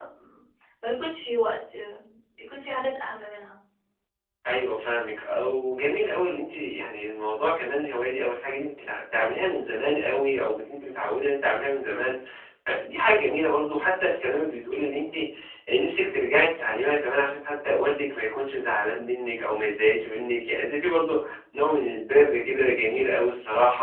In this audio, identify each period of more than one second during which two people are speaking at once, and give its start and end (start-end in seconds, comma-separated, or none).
none